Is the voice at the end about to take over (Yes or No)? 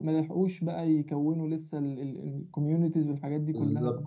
Yes